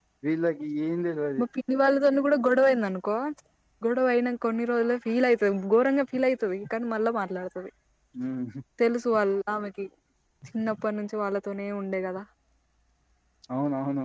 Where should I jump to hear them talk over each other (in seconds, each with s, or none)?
none